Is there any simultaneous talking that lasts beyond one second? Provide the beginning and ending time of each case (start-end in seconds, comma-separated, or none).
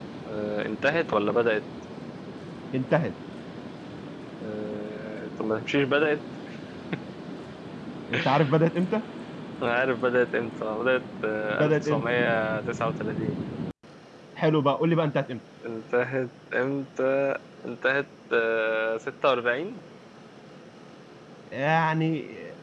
none